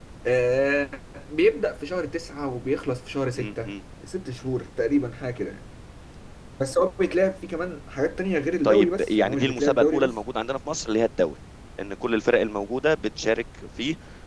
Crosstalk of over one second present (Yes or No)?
Yes